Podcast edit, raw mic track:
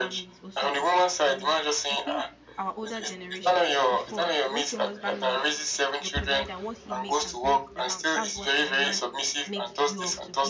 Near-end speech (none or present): present